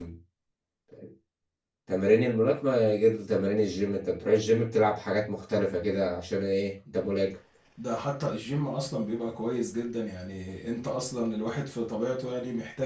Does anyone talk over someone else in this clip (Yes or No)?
No